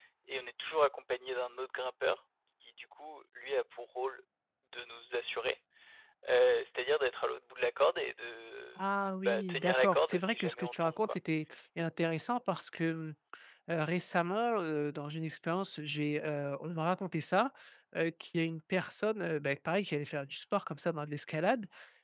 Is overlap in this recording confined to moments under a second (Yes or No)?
No